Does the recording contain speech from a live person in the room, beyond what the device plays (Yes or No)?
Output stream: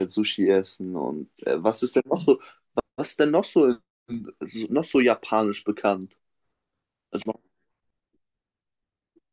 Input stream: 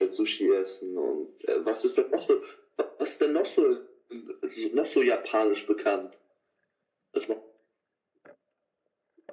No